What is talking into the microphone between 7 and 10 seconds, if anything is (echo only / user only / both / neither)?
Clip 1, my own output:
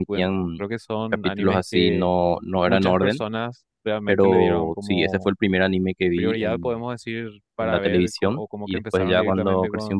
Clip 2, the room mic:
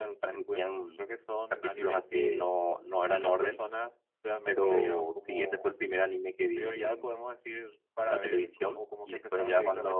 echo only